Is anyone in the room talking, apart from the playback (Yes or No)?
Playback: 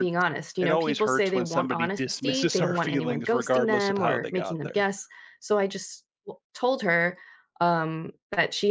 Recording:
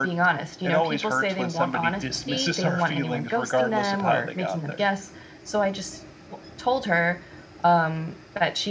No